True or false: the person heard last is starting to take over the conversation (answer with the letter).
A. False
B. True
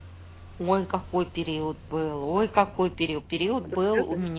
A